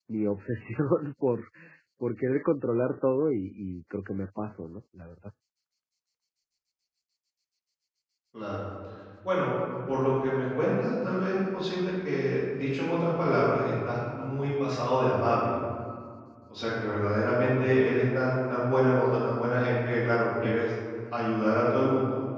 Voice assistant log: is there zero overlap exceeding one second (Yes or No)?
Yes